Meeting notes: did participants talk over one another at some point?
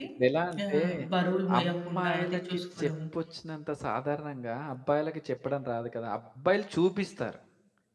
Yes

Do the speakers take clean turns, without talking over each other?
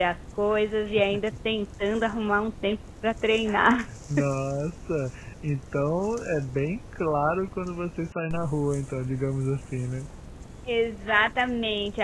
Yes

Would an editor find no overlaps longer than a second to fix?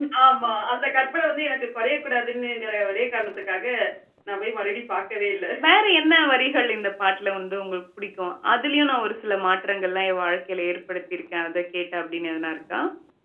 Yes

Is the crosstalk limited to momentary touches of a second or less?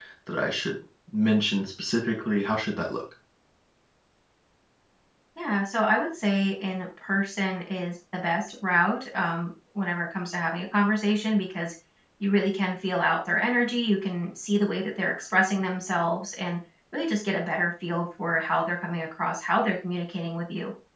Yes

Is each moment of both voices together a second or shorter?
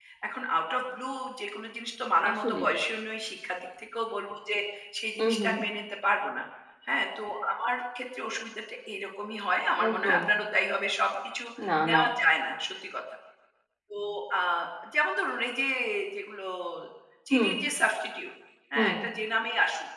Yes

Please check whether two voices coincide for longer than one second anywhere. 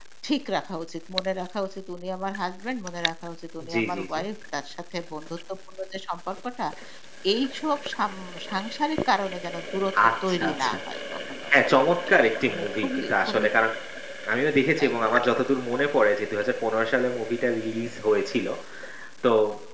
Yes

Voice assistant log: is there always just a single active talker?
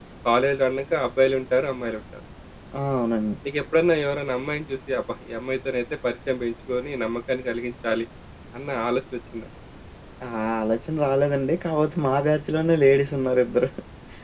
Yes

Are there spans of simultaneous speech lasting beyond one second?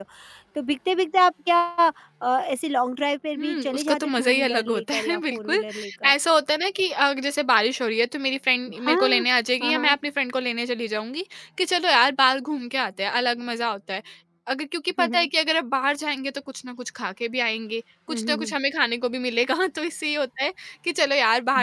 Yes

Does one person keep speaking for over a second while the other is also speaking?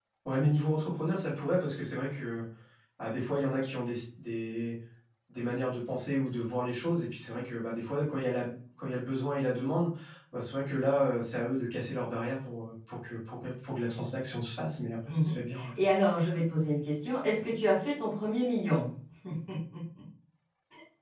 No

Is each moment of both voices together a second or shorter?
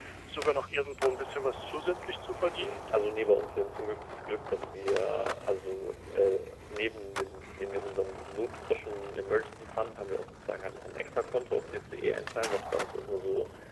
Yes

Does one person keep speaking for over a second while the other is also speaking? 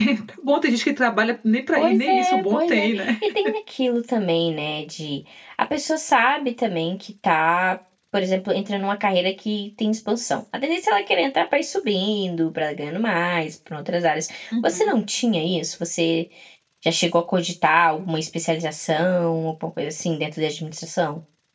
Yes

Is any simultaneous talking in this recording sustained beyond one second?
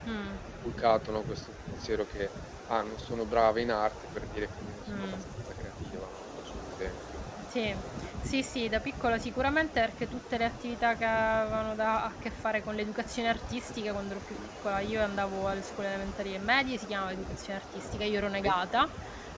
No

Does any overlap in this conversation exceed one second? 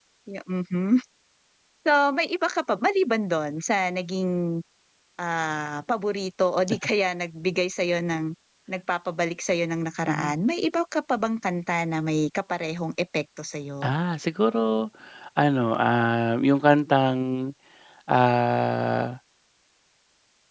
No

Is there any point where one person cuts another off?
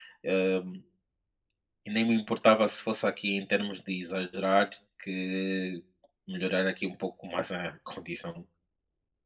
No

